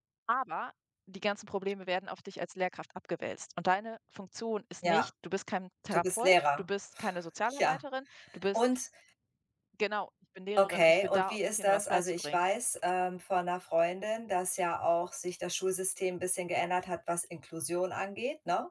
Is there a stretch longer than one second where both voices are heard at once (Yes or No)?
Yes